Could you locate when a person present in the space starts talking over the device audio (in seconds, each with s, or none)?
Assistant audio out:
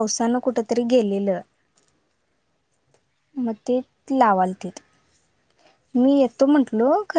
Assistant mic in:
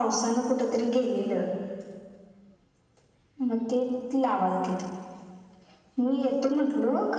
none